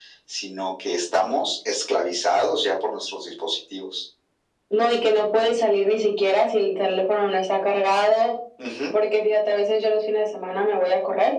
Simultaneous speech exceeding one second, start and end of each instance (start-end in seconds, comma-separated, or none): none